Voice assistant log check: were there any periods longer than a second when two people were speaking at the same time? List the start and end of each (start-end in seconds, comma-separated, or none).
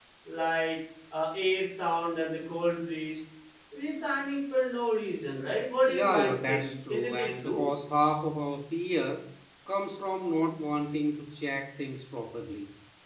5.8-7.7